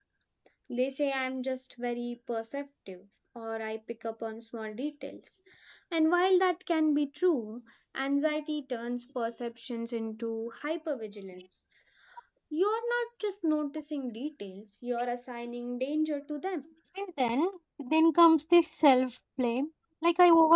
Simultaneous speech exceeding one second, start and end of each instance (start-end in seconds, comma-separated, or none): none